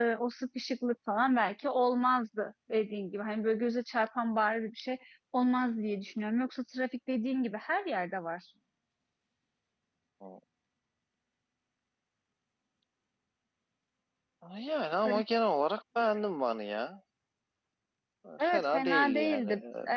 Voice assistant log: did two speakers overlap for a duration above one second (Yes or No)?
Yes